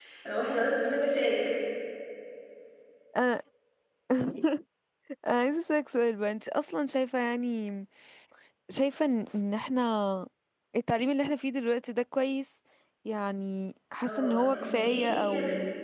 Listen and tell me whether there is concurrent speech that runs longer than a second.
Yes, from 14.0 s

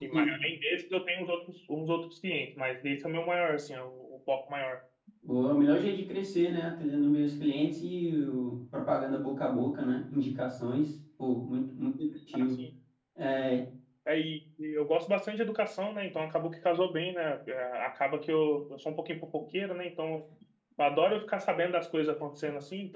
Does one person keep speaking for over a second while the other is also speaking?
No

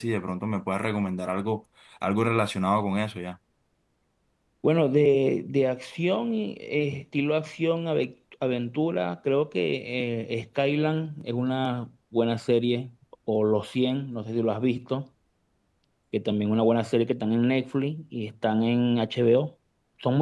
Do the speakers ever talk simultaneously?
No

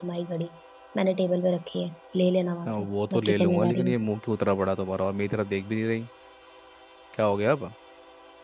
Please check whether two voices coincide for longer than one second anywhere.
Yes, from 2.6 s

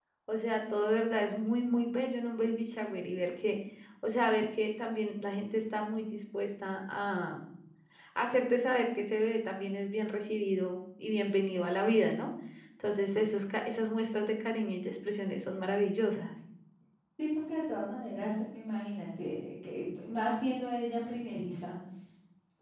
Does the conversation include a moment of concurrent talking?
No

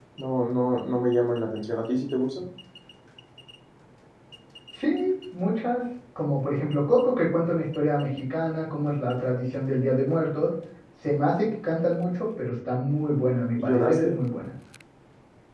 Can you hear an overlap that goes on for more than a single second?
No

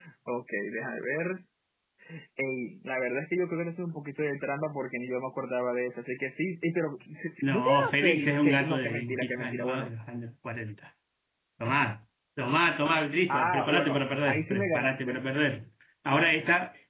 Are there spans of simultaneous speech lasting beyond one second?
Yes, from 7.4 s

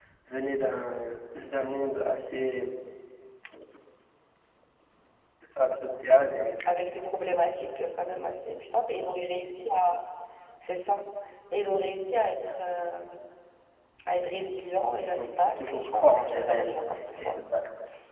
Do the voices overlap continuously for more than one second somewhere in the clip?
Yes, from 15.0 s

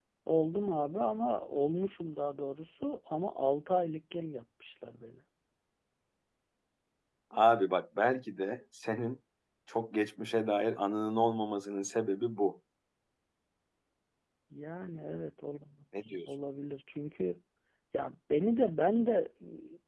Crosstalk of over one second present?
No

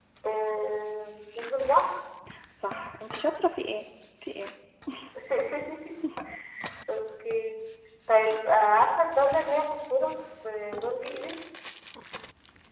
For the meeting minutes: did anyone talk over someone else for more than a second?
No

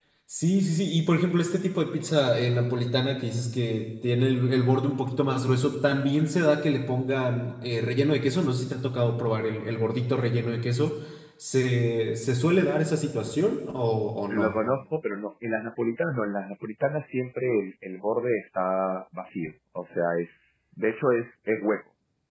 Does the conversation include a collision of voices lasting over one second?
No

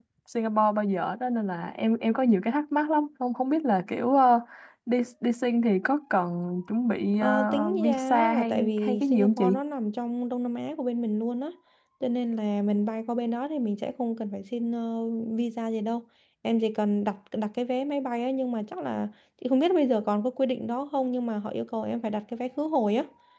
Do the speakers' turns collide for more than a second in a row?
Yes, from 7.2 s

